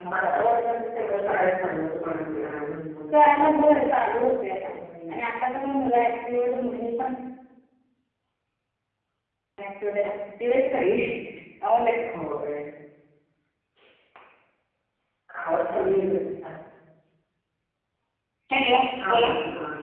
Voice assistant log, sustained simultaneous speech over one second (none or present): none